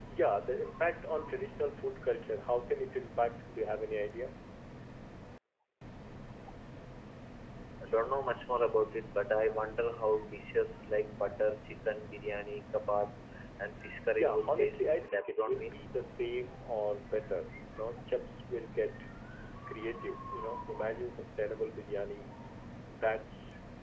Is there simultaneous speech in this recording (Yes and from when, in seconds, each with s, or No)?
Yes, from 14.1 s